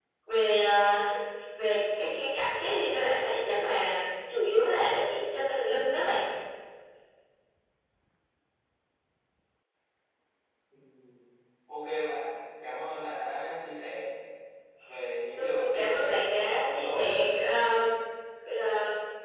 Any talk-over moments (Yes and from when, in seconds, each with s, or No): Yes, from 15.4 s